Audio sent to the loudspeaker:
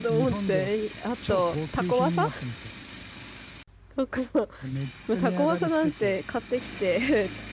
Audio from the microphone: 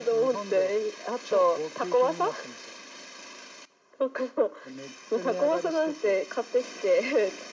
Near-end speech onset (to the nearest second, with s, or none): none